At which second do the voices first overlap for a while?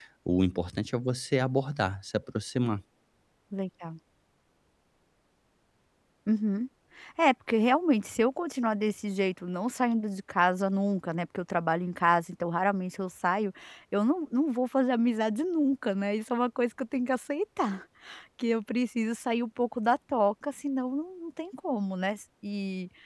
none

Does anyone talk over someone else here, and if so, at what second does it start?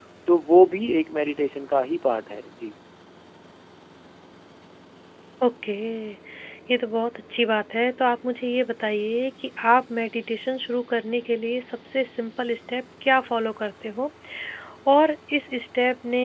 none

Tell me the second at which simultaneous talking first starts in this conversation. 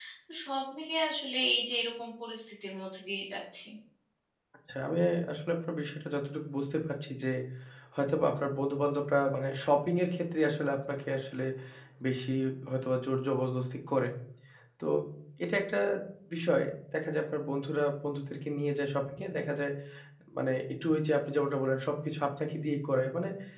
none

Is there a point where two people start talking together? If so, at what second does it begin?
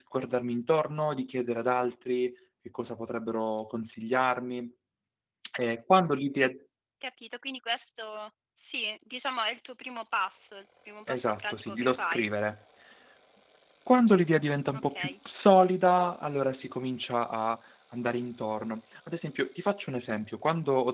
11 s

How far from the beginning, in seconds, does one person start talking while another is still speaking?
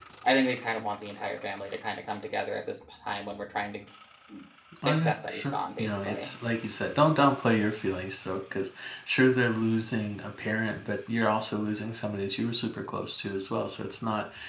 5 s

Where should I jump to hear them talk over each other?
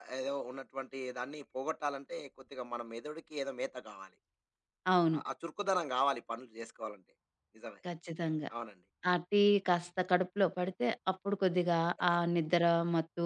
none

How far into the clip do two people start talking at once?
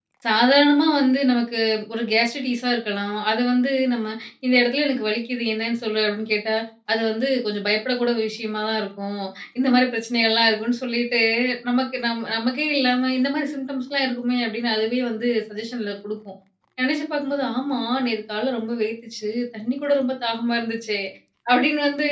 none

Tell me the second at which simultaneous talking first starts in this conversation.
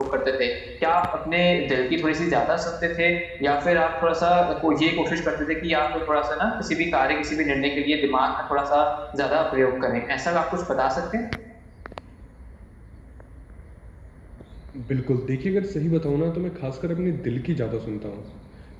none

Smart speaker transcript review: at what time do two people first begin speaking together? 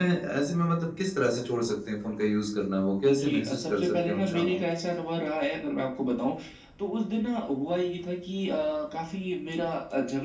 3 s

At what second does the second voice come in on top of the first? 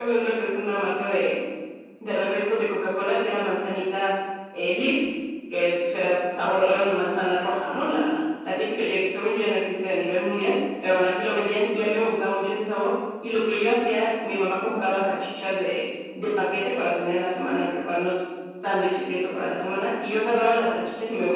none

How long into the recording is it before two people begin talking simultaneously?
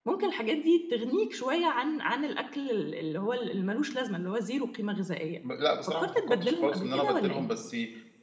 6 s

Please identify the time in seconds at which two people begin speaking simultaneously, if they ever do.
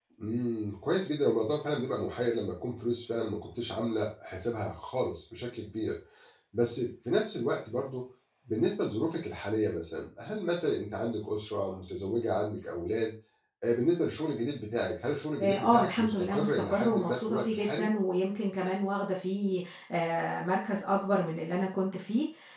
15 s

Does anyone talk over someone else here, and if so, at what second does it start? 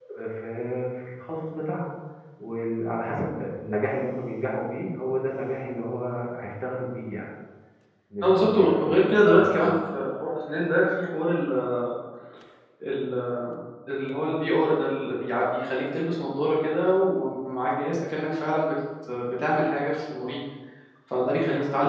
8 s

